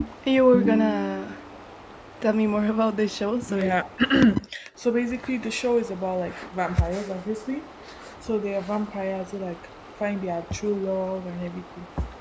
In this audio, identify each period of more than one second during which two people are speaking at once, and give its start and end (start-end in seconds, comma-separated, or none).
none